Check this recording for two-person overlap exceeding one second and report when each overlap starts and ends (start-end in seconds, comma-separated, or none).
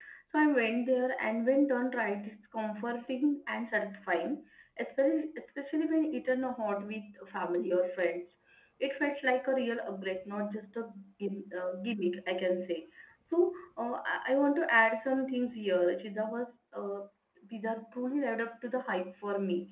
none